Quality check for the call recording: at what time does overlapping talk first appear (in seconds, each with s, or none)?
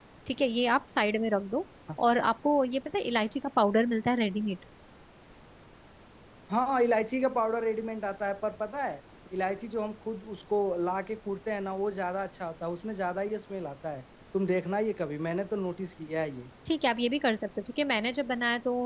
none